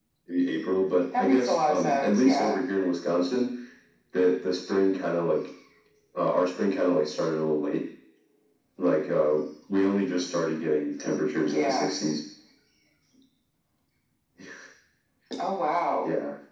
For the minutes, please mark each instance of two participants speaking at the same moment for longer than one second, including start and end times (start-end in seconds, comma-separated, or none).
1.2-2.6